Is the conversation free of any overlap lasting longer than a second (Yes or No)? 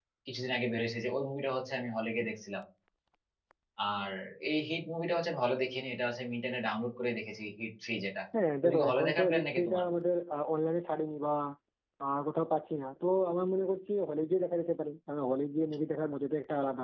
No